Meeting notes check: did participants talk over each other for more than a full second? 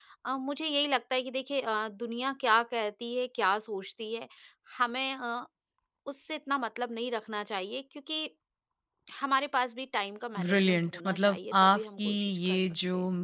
Yes, from 10.4 s

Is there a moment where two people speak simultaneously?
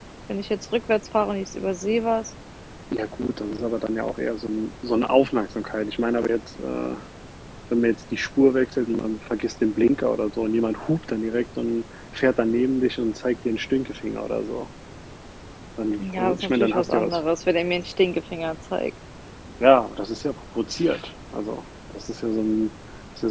Yes, from 16.0 s

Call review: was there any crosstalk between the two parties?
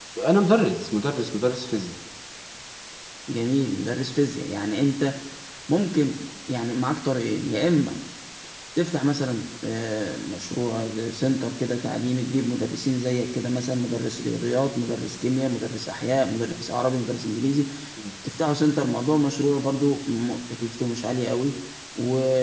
No

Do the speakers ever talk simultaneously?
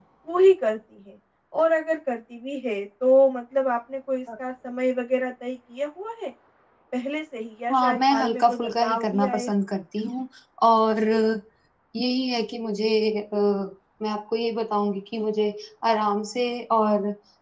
Yes, from 7.7 s

